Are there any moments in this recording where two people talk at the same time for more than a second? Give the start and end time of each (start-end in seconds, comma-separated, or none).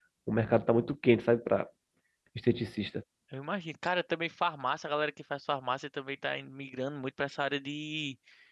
none